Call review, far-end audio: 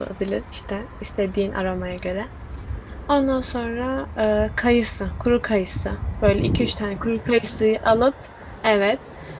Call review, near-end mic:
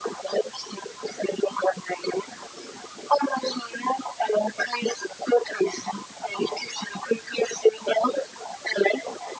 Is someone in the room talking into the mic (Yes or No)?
No